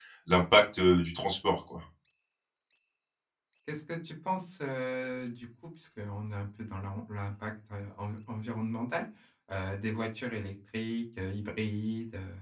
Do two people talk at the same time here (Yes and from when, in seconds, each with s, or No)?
No